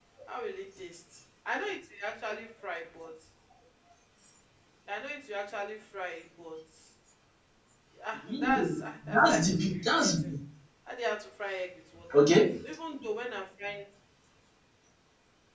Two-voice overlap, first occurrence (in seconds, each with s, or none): 8.4 s